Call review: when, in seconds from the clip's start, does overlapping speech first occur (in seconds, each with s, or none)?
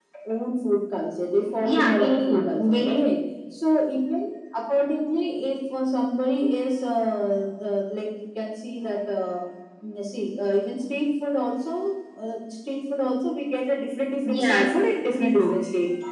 1.6 s